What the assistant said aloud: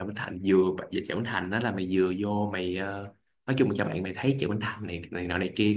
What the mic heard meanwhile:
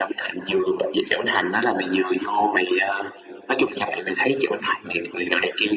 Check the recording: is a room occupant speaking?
No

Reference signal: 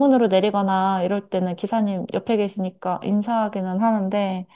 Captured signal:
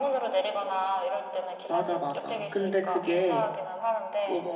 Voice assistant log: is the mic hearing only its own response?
No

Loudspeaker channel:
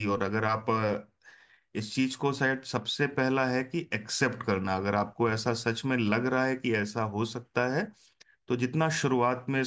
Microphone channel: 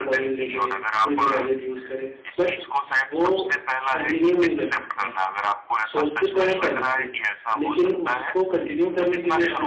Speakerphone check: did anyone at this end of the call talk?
Yes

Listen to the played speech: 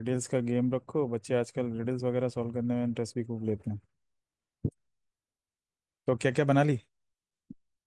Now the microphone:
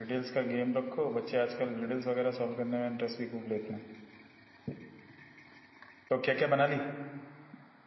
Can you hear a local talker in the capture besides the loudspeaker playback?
No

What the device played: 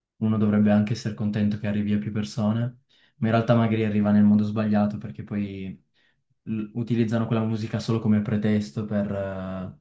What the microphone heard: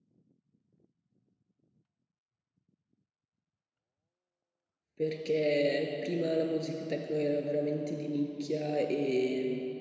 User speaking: Yes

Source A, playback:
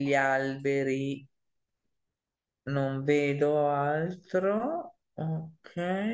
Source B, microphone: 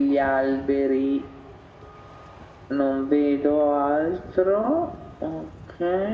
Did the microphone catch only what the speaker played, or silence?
Yes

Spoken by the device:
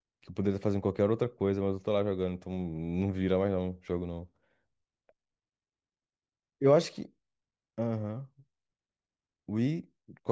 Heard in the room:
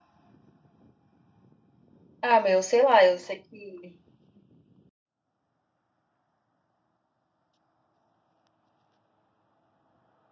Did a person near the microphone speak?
Yes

